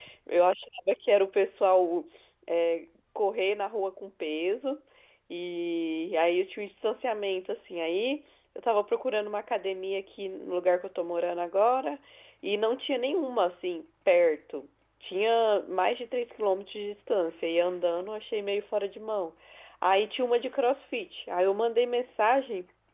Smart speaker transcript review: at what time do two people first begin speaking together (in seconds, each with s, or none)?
none